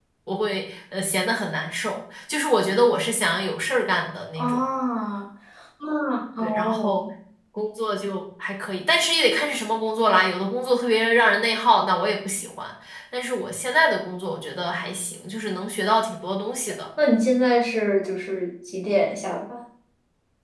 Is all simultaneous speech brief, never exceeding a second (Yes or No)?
Yes